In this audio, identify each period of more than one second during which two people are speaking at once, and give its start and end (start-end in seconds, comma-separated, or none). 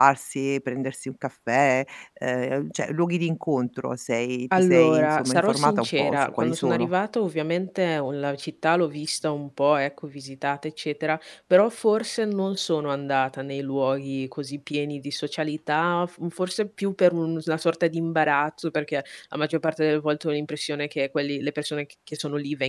4.6-6.9